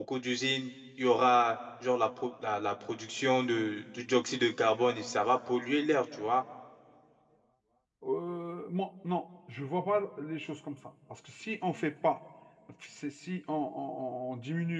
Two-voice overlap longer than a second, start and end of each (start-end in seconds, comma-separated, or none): none